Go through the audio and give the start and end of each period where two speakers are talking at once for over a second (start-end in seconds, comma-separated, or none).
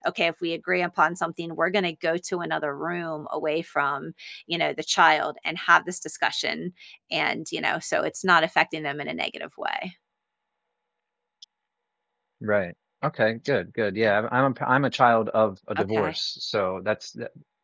none